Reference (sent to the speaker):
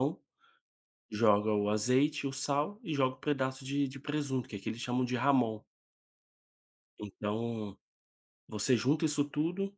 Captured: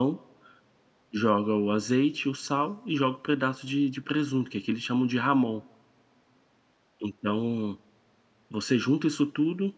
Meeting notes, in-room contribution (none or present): none